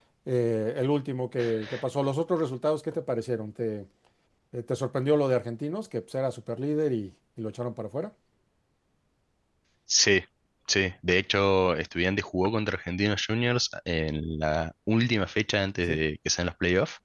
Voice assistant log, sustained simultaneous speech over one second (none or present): none